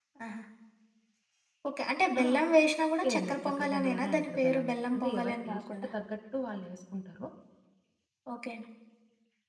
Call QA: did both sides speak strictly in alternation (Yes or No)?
No